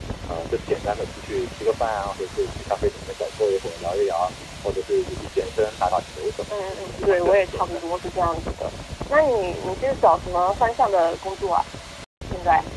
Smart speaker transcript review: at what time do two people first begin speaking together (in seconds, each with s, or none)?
6.5 s